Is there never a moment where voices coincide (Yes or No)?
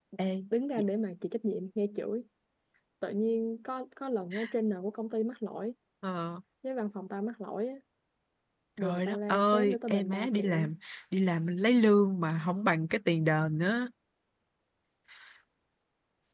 No